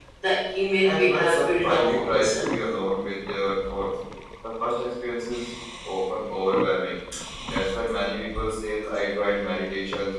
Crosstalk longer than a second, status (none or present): present